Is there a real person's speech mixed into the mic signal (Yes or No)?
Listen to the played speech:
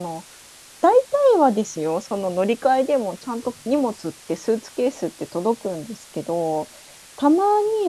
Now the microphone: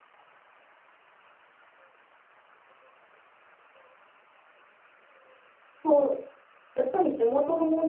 Yes